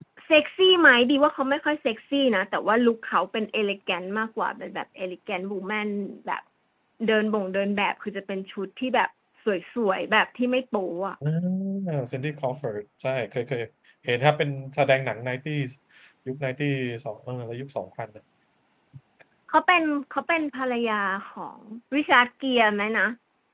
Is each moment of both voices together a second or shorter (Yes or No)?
Yes